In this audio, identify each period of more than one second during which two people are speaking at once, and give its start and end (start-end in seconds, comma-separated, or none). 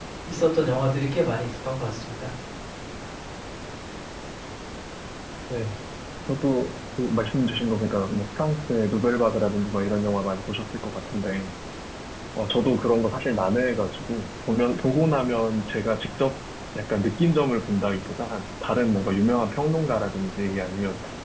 none